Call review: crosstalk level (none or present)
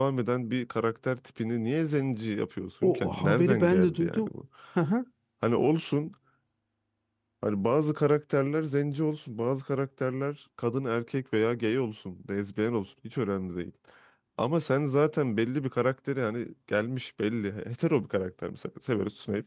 present